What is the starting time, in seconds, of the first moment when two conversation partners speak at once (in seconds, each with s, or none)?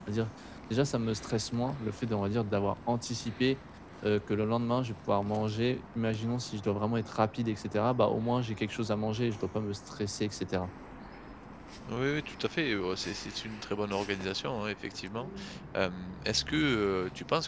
none